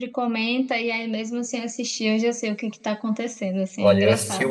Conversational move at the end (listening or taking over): taking over